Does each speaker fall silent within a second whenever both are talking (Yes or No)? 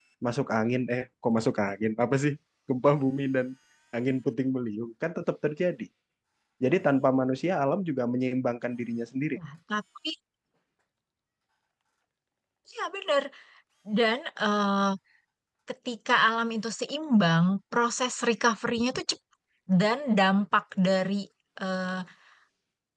Yes